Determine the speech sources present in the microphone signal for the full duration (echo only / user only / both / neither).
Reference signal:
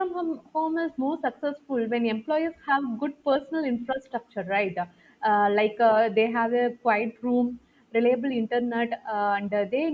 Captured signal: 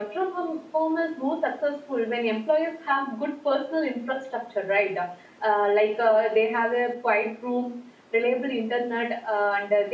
echo only